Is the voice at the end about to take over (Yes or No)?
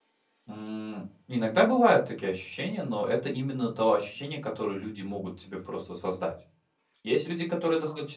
No